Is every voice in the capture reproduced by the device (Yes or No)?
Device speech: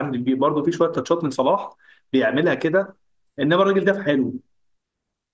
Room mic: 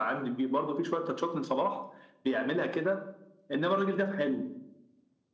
Yes